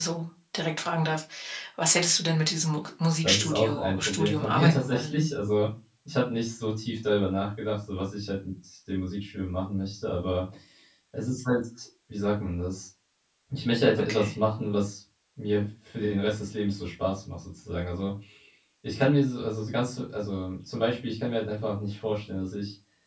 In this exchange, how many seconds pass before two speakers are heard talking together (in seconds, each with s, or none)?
3.2 s